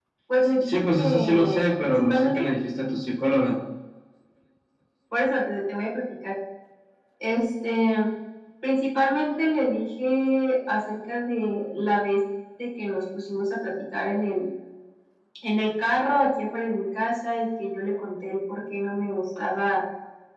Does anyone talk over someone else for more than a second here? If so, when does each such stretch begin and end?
0.6-2.5

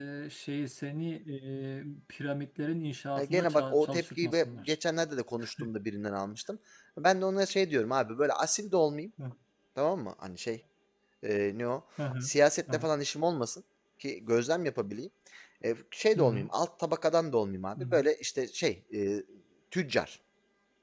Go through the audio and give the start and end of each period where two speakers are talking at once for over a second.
3.2-4.8

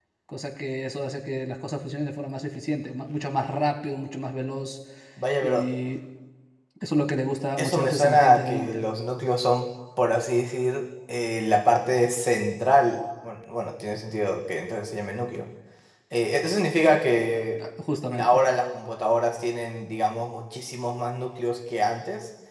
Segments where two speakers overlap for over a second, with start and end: 7.6-8.9

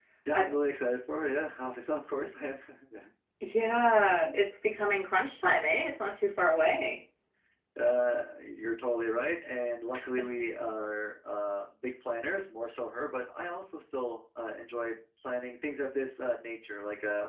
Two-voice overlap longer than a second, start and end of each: none

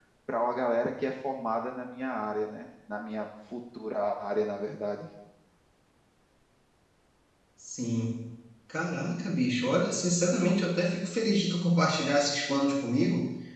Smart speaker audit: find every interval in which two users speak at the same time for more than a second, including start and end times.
none

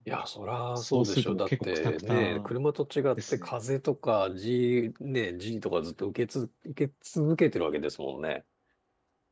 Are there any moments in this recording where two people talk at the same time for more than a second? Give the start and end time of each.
0.8-2.5

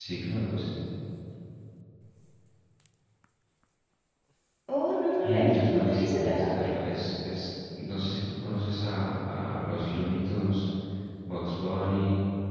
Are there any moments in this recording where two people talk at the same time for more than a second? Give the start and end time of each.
5.2-6.5

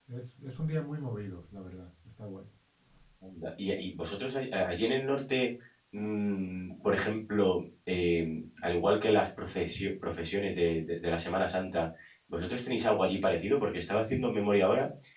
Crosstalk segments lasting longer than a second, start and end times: none

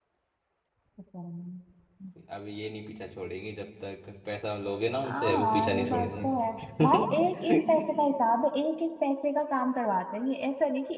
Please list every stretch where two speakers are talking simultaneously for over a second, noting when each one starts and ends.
5.0-6.3

